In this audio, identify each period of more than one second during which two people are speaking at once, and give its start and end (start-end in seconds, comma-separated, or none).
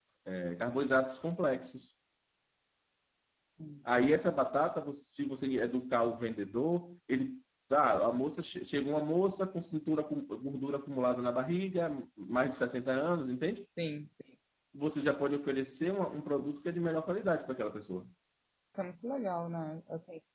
none